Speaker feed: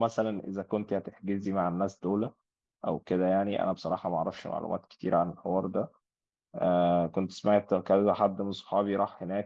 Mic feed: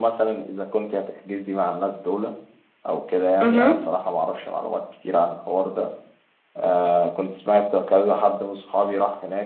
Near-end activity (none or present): present